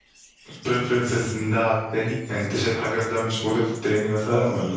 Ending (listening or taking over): taking over